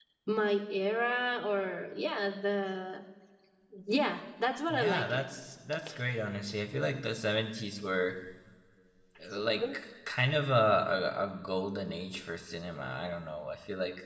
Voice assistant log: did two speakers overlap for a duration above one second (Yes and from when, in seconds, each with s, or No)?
No